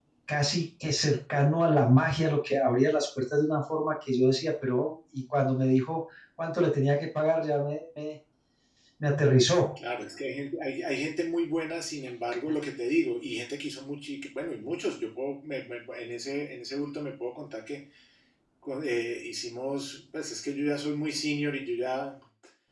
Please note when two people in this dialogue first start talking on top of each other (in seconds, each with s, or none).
none